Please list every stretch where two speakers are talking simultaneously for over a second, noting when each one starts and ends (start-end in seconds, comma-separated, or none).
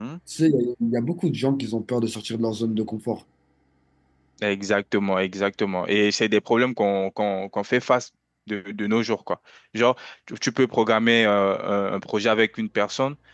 none